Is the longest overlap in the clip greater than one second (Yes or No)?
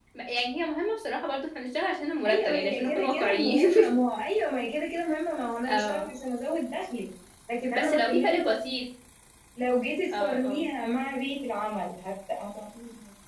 Yes